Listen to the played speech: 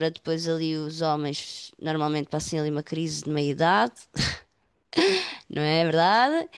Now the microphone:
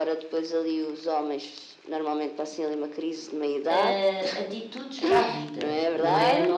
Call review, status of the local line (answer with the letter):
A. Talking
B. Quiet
A